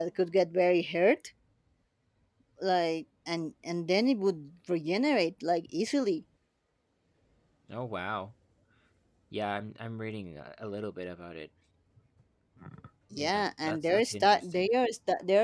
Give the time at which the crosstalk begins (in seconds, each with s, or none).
13.1 s